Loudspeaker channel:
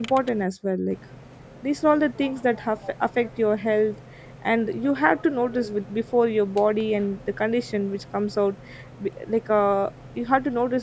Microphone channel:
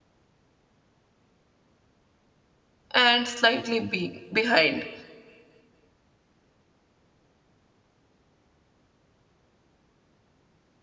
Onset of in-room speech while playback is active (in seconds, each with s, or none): 2.9 s